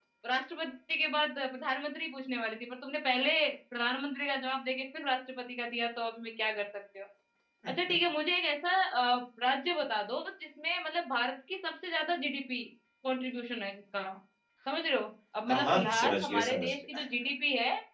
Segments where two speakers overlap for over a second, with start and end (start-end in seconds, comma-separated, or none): 15.5-17.0